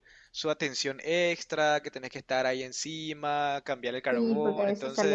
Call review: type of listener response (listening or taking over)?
taking over